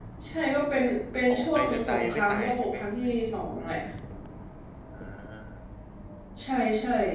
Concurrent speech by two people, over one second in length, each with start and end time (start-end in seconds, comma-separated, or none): 1.3-2.8